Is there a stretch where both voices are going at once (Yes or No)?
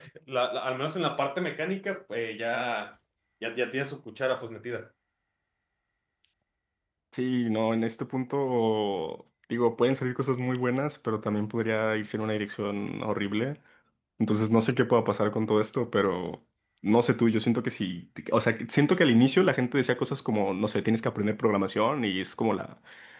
No